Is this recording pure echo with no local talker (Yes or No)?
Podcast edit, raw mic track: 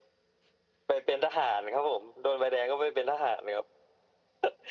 Yes